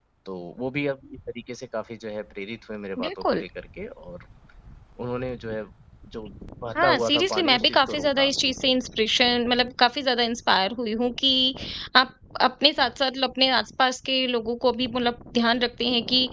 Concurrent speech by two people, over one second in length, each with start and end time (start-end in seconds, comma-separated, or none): 6.8-8.3